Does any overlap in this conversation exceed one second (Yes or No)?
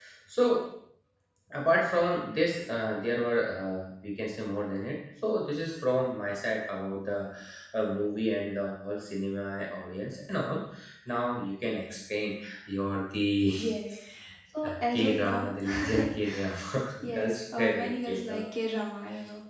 Yes